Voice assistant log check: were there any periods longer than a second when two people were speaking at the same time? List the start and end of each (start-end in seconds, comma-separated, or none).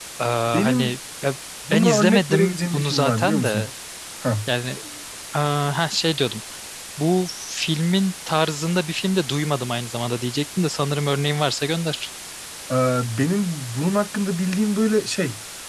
1.7-3.7